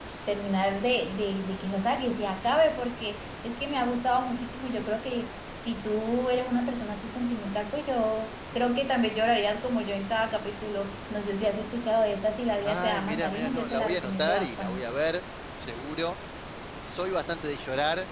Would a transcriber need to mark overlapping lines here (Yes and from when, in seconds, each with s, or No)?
Yes, from 12.6 s